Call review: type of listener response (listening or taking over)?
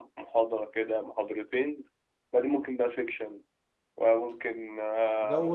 taking over